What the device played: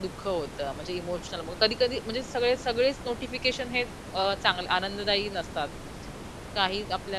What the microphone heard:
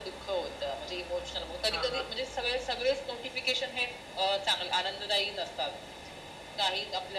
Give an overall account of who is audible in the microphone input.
both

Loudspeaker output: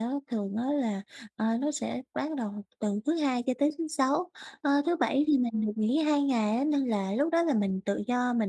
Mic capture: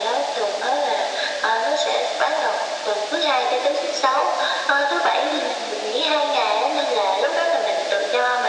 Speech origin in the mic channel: echo only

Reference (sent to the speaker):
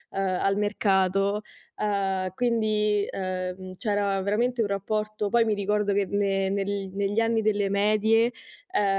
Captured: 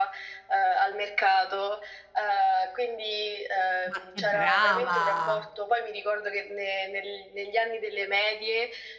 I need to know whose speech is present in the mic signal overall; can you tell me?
both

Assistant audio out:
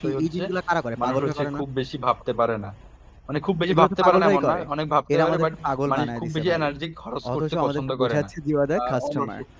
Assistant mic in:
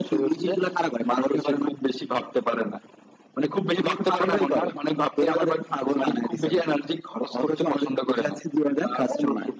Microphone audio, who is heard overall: echo only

